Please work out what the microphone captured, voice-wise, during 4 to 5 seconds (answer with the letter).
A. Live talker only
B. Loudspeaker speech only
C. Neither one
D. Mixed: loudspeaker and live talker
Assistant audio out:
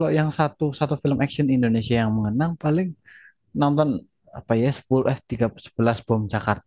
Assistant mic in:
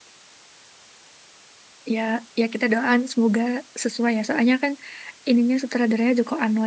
A